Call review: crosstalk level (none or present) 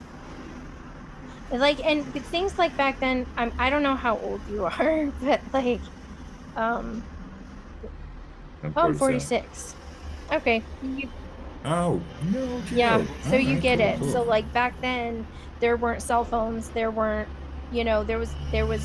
present